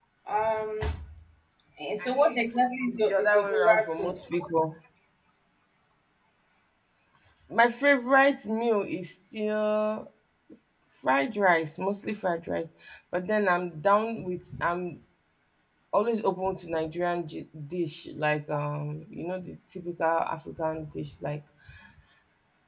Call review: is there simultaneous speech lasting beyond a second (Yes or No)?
Yes